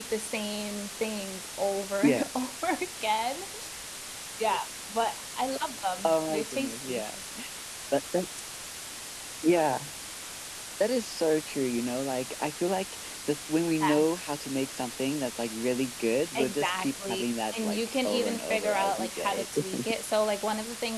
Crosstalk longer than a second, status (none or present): present